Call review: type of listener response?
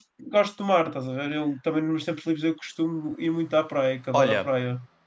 taking over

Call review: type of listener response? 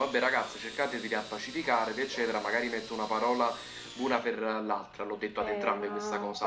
taking over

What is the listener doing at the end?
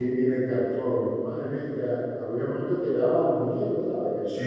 taking over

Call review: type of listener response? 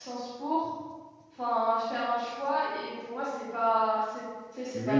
taking over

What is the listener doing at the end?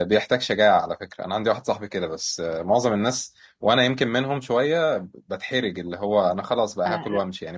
taking over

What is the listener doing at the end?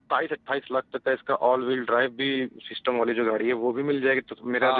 taking over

